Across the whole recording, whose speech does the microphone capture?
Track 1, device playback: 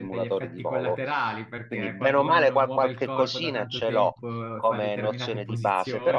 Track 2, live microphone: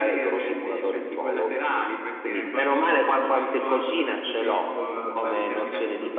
echo only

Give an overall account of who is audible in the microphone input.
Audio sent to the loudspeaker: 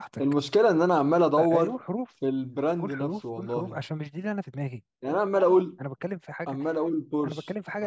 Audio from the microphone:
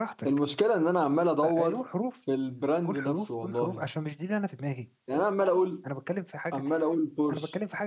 echo only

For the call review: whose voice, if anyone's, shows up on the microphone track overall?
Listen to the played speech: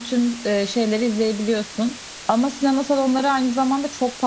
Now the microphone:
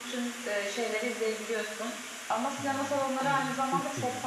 both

